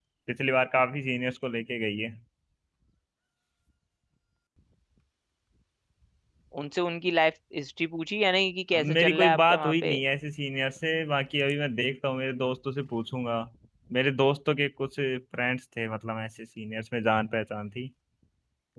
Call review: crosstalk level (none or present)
present